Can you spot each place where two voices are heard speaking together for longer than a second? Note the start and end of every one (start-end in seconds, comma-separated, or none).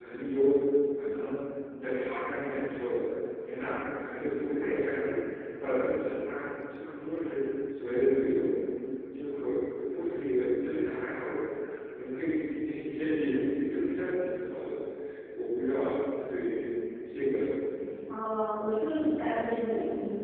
none